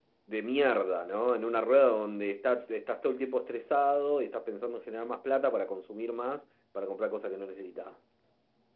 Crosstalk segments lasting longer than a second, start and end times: none

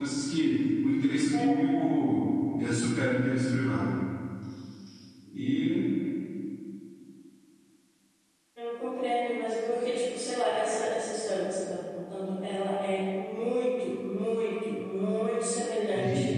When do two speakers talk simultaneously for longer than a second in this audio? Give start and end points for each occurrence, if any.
none

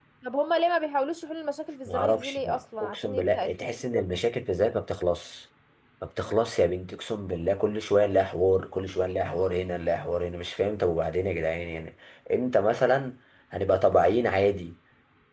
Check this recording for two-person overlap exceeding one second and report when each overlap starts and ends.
1.9-4.0

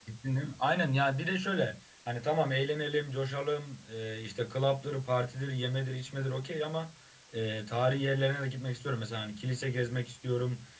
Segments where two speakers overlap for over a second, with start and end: none

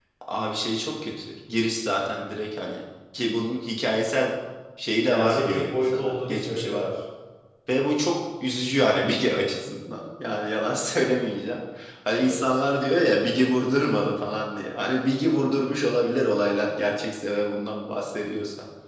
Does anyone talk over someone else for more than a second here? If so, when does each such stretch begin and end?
5.1-6.9

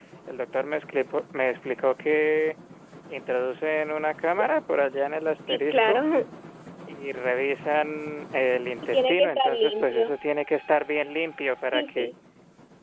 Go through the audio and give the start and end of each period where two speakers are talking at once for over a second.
8.9-10.1

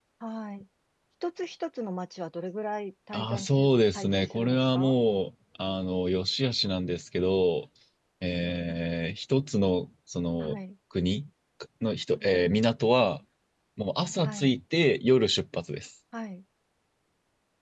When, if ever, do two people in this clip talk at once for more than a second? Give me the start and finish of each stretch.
3.1-4.9

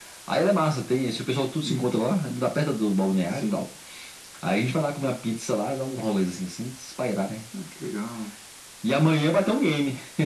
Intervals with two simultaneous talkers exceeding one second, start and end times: none

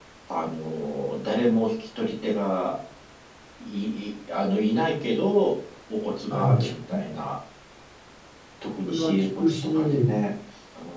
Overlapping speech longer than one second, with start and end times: 8.9-10.1

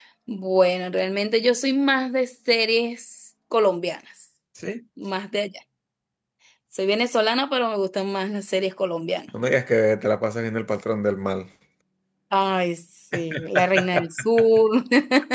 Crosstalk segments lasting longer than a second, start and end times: none

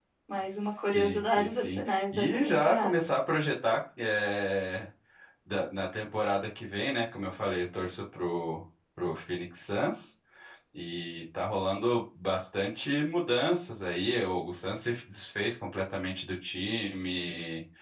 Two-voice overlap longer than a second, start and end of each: 0.9-3.1

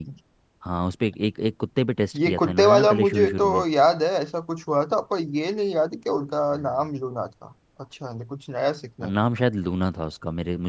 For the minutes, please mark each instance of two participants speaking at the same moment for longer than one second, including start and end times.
2.2-3.6

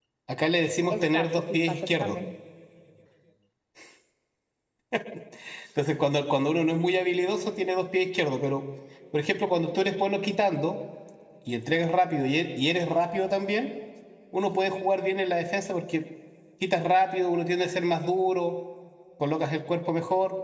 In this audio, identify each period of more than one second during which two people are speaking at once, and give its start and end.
0.9-2.2

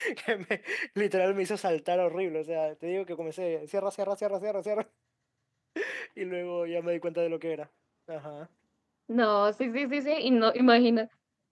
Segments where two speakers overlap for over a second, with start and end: none

